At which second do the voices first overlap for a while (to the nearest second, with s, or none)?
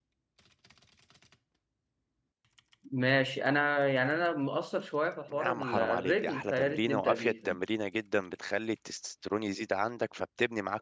5 s